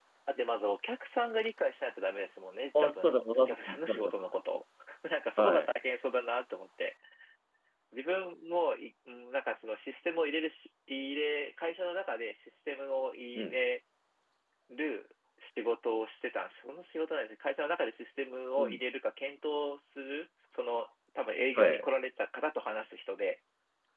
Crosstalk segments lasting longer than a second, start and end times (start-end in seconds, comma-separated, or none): 2.8-4.1